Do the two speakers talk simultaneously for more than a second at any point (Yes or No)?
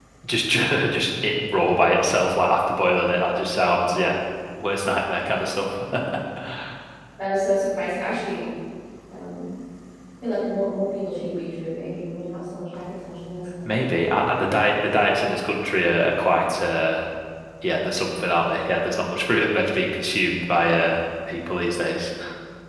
No